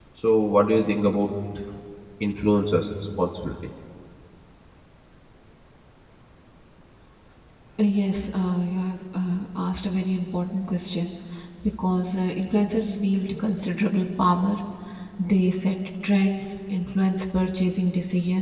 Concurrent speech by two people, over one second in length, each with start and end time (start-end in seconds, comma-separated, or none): none